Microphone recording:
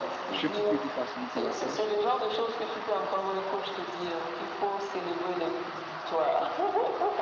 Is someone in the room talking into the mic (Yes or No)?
Yes